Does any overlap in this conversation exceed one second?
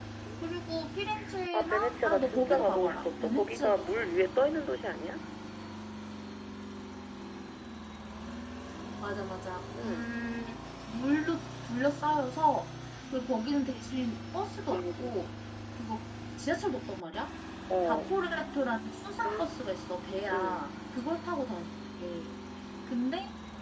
Yes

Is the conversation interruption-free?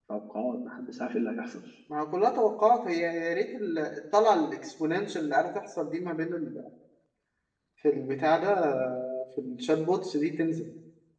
Yes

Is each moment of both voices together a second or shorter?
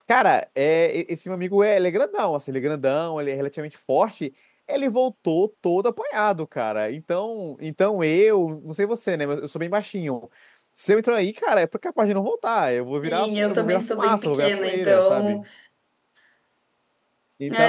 No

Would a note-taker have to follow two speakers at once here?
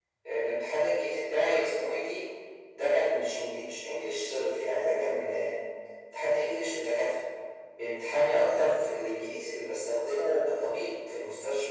No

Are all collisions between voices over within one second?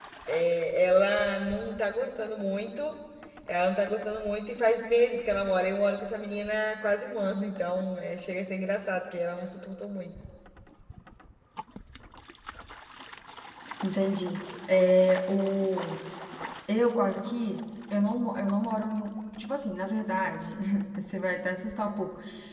Yes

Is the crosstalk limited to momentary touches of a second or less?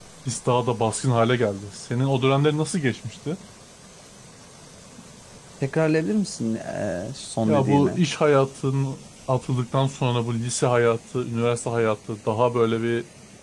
Yes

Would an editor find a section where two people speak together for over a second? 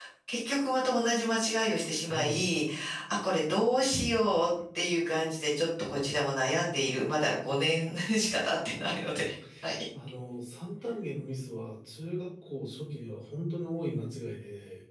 No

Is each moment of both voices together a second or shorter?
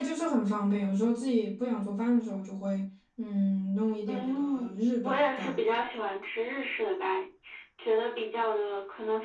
No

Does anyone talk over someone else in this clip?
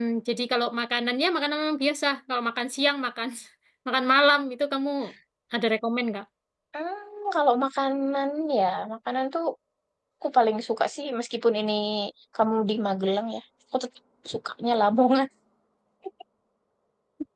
No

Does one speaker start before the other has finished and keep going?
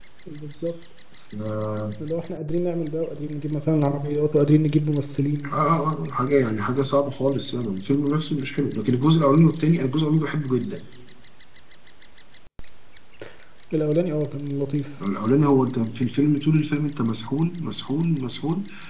No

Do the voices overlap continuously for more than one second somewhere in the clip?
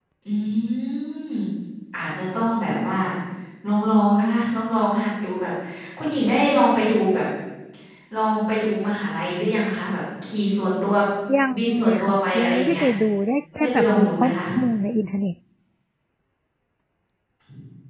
Yes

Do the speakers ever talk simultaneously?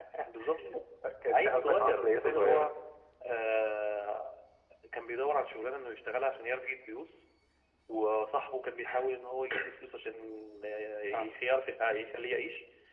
Yes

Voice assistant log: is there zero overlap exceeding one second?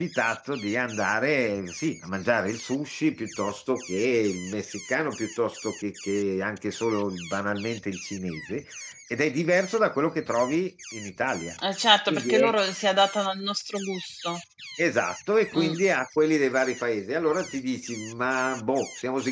Yes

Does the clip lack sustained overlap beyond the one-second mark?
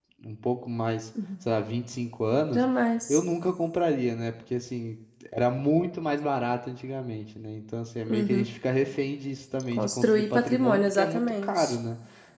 No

